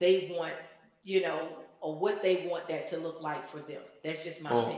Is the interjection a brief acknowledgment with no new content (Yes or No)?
No